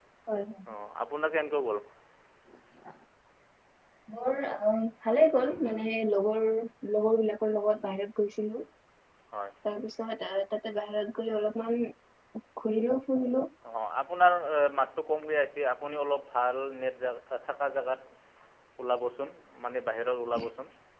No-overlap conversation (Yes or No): Yes